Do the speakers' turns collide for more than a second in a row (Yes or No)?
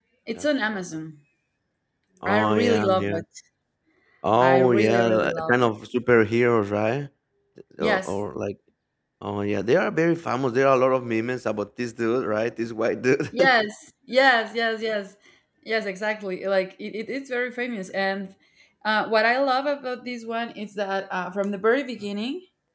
Yes